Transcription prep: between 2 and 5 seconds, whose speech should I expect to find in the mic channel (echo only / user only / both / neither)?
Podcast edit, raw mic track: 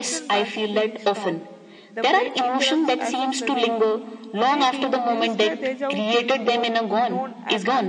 both